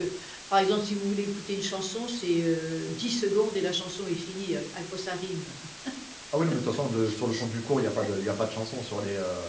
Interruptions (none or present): none